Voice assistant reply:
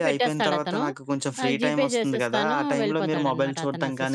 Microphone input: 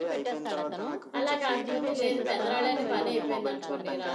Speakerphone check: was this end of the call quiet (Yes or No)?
No